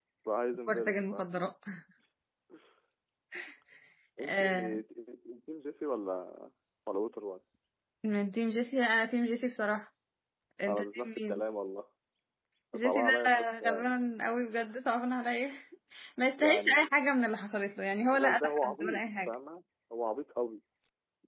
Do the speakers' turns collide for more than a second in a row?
Yes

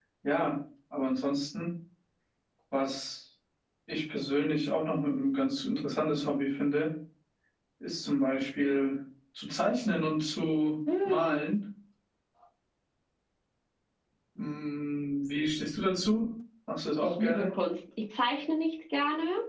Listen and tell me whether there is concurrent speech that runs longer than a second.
No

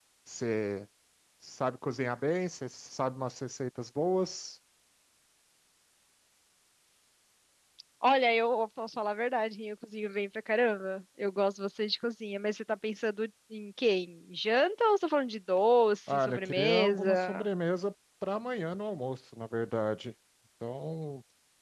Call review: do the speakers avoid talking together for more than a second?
No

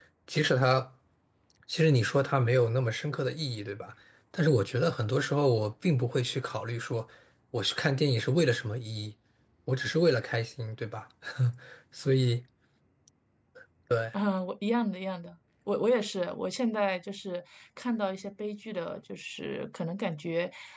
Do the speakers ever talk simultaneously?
No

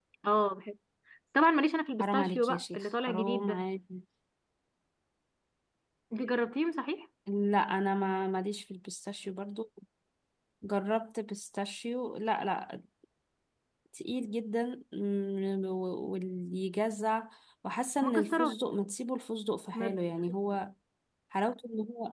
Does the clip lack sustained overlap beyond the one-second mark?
No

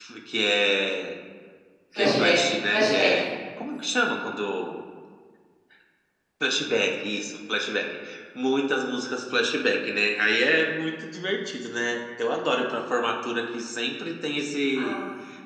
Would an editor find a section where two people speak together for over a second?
Yes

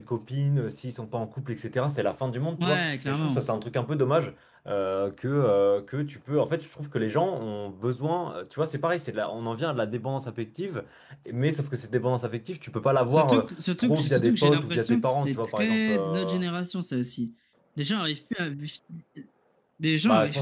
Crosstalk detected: Yes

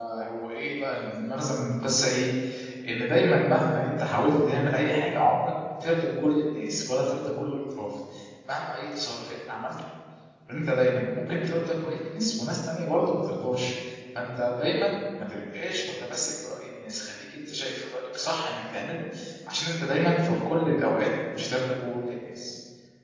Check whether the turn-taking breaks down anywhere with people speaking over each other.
No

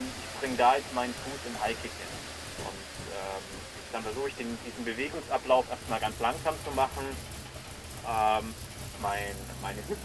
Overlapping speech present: No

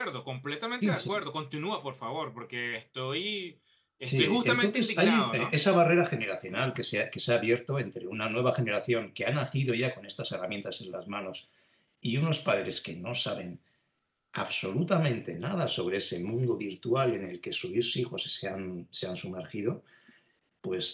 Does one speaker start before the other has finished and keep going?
Yes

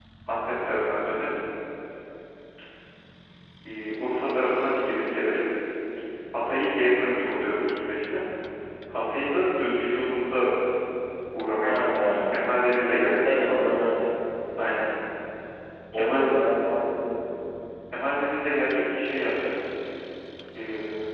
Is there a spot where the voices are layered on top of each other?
Yes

